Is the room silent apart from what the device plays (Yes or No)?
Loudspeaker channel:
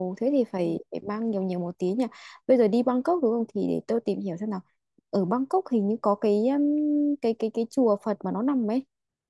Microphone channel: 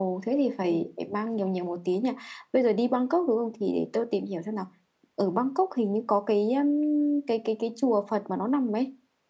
Yes